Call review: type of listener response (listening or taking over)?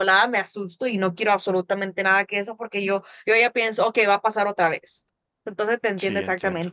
listening